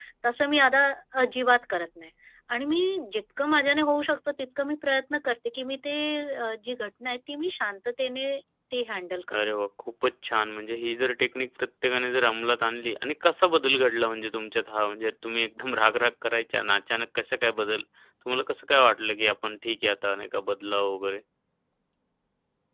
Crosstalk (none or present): none